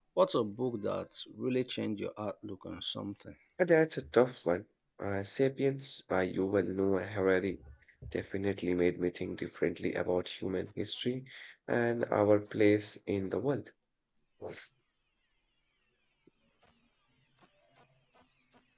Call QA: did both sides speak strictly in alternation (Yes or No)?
Yes